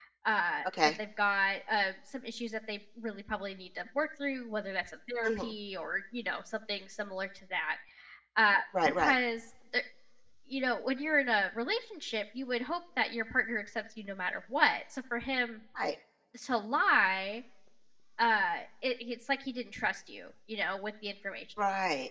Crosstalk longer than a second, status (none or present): none